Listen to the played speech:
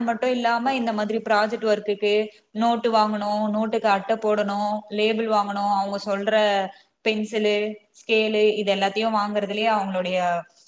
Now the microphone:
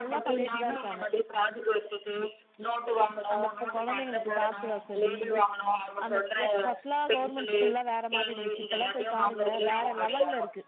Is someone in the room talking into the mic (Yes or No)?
Yes